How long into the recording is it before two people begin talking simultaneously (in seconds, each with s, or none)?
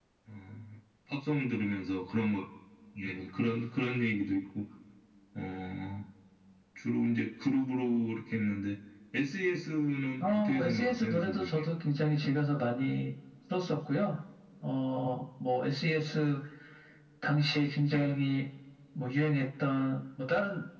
10.2 s